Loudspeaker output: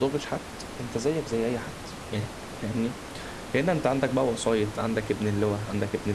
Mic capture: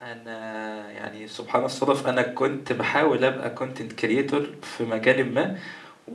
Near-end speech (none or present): present